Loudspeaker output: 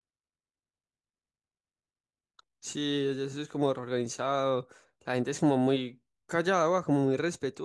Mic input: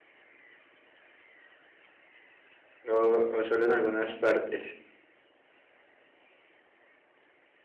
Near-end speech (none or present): present